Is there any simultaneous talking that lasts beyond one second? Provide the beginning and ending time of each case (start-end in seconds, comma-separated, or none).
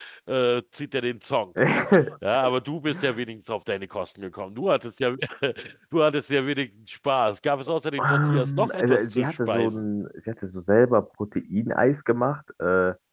8.0-9.8